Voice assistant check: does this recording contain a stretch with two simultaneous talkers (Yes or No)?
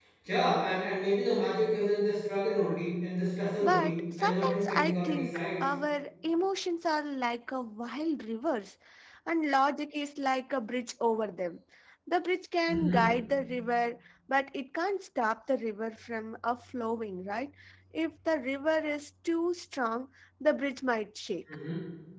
Yes